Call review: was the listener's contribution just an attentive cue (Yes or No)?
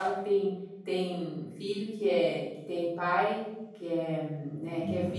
Yes